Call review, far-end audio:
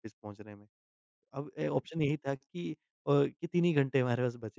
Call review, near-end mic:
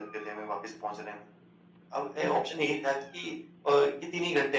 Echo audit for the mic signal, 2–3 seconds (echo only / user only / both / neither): echo only